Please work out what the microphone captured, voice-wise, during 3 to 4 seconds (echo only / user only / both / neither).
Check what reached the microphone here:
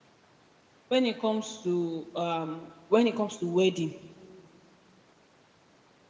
user only